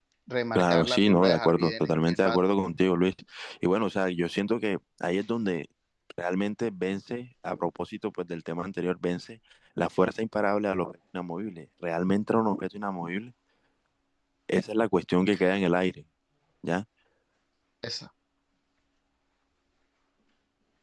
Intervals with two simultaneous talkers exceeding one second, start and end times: 0.6-2.4

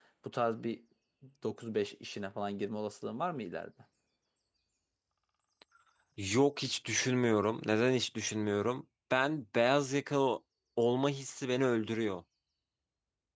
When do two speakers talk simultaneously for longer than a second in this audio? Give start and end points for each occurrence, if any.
none

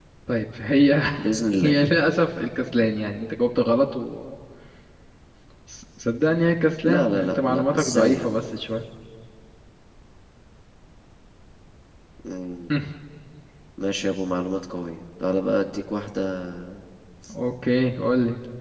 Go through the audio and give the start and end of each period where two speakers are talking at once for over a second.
6.8-8.3

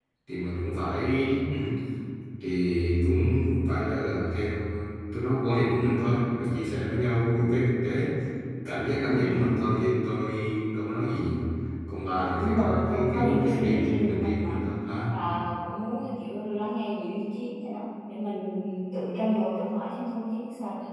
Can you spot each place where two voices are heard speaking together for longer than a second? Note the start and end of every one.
12.3-14.6

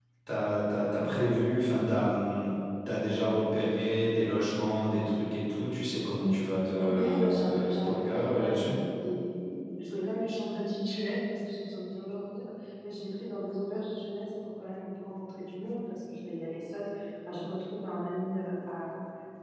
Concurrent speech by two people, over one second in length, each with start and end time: 6.8-8.7

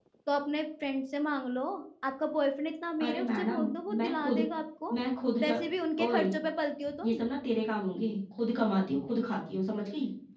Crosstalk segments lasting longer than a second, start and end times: 3.0-4.4

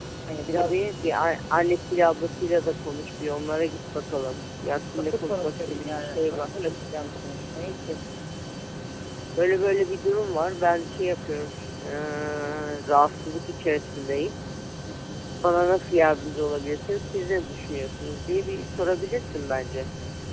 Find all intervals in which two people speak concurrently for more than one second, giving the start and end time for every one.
5.0-6.5

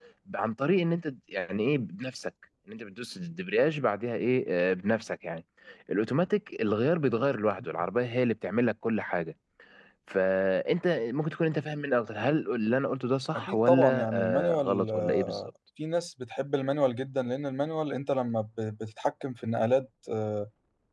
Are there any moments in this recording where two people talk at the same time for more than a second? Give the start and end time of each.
13.4-15.5

